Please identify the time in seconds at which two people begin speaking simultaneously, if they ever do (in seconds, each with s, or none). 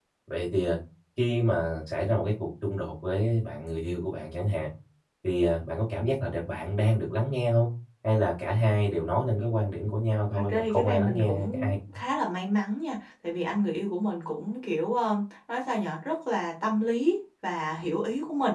10.3 s